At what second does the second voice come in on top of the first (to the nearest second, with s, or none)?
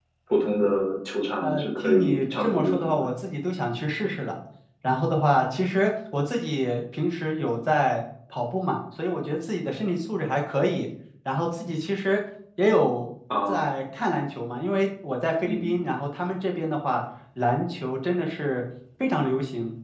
1 s